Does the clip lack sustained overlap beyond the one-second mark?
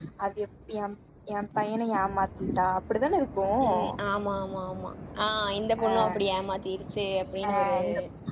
Yes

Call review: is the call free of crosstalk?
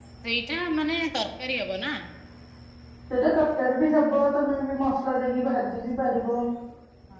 Yes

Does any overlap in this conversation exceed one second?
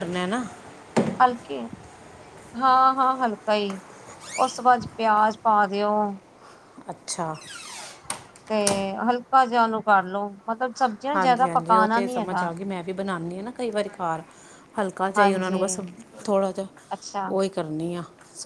Yes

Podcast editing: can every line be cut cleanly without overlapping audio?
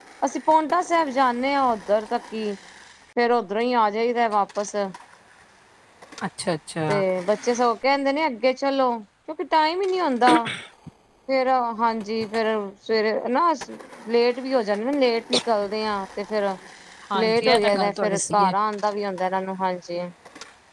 No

